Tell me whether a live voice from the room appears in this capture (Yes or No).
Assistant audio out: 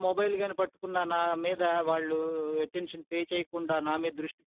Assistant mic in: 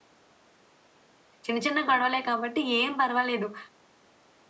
Yes